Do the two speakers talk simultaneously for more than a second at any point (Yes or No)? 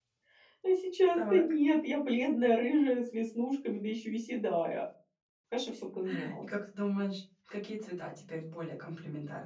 No